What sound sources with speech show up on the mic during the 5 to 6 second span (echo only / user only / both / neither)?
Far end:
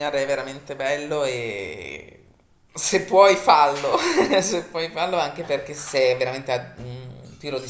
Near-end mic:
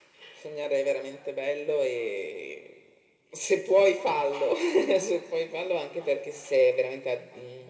echo only